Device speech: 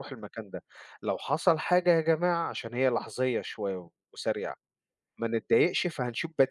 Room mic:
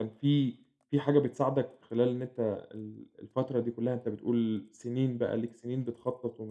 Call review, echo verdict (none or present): none